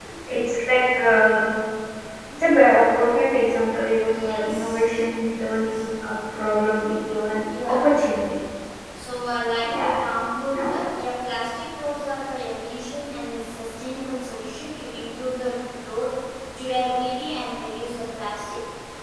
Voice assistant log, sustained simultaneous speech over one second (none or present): present